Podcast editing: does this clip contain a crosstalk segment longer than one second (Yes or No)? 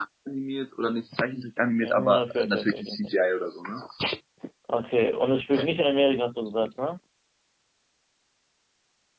Yes